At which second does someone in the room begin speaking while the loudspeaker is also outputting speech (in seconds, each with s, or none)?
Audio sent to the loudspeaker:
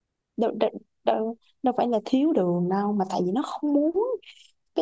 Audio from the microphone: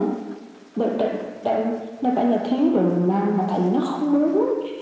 none